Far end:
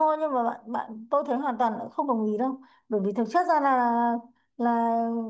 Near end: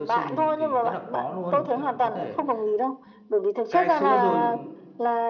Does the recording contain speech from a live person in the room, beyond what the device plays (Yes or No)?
Yes